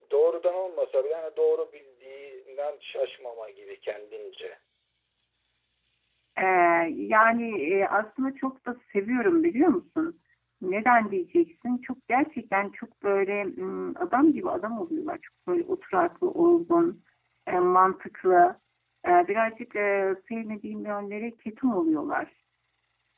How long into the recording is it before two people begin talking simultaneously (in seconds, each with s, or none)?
none